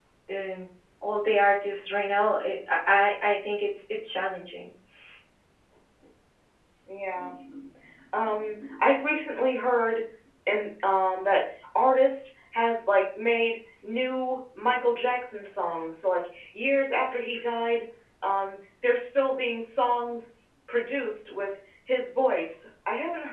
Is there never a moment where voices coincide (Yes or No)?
Yes